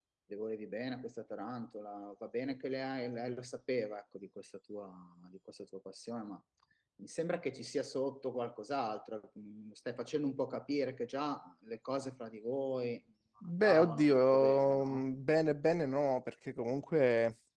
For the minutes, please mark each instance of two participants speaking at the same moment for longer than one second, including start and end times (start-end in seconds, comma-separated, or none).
13.6-15.0